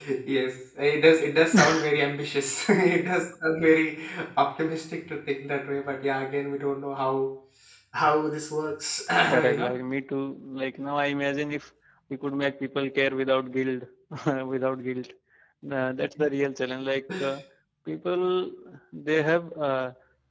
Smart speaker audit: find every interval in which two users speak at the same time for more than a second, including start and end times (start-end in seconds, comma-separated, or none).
none